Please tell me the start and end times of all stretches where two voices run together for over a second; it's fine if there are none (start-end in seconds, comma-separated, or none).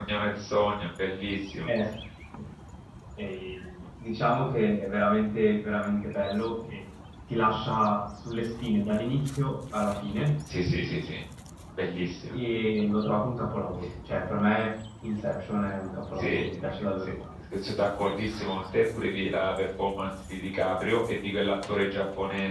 none